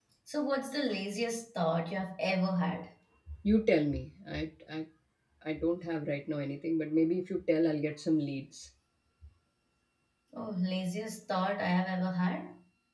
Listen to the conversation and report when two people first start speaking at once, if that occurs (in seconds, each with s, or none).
none